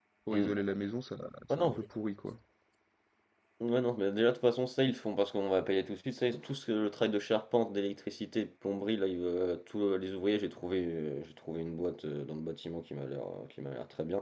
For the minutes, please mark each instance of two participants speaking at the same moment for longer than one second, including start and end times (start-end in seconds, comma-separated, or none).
none